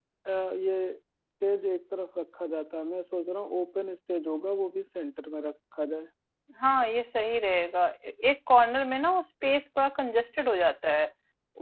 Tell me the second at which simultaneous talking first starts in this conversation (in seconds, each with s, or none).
none